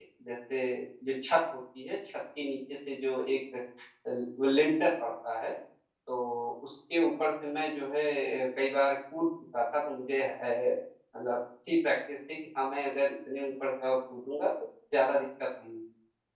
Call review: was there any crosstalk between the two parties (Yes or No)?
No